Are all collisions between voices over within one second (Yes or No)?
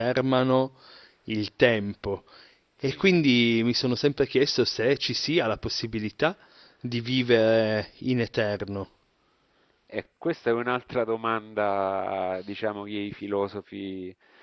Yes